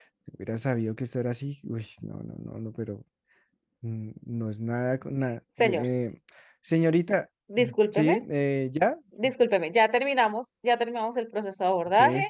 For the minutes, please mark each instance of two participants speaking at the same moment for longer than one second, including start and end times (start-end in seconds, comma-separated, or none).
none